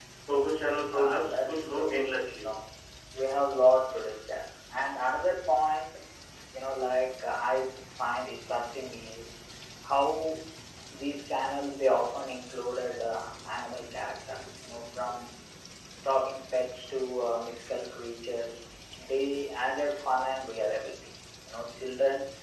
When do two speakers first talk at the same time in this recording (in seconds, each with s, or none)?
0.9 s